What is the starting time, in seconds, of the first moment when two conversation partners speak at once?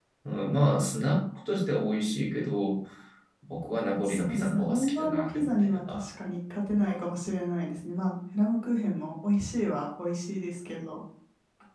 4 s

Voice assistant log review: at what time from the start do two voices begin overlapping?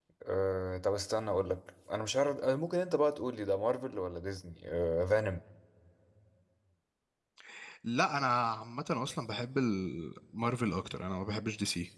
none

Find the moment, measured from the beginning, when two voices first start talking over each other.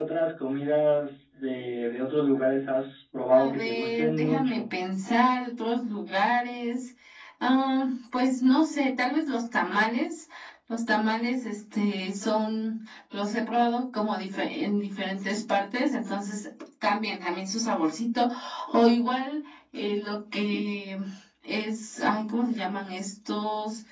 3 s

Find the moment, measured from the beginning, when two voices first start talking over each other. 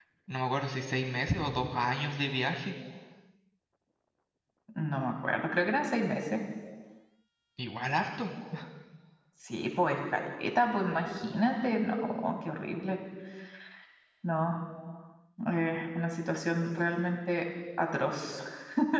none

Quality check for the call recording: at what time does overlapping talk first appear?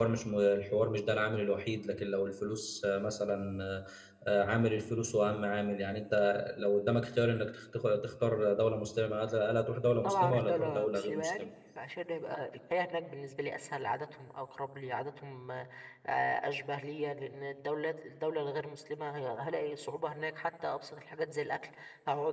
10 s

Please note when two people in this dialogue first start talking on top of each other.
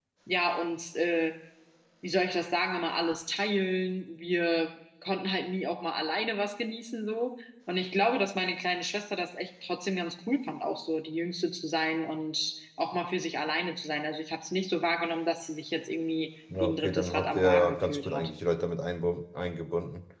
17 s

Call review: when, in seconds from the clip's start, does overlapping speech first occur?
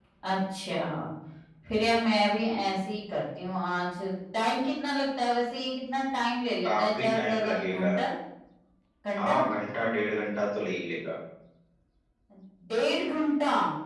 7 s

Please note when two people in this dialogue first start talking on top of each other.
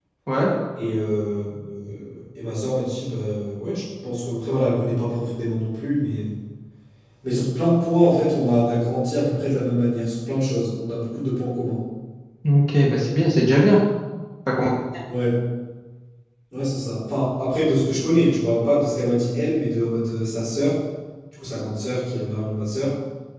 none

